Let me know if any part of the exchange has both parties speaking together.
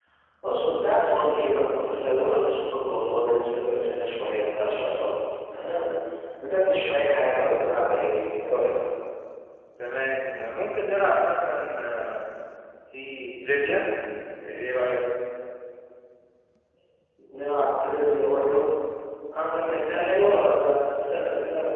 No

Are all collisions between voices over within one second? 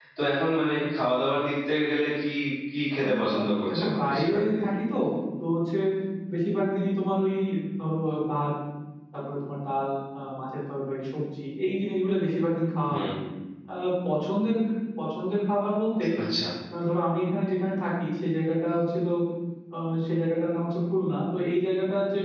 No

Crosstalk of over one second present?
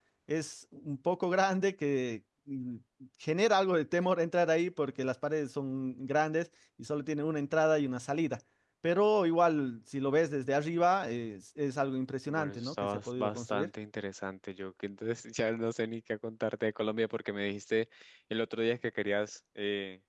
Yes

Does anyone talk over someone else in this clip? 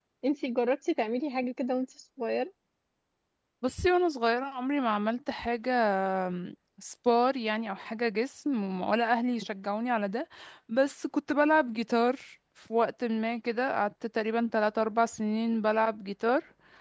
No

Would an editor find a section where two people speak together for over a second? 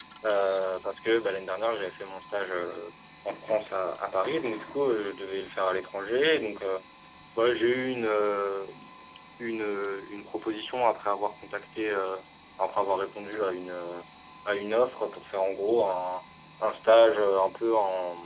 No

